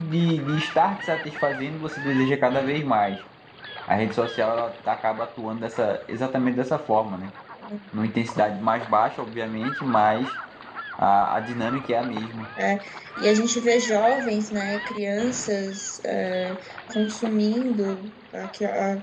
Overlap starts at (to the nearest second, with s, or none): none